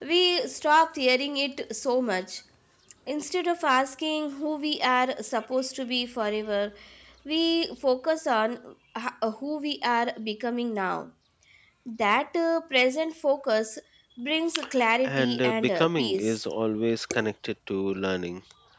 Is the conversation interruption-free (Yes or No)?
No